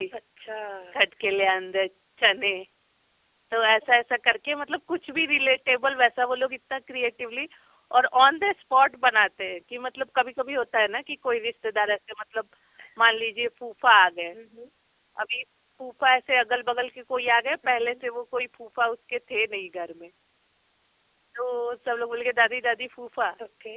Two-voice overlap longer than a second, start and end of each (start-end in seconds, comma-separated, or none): none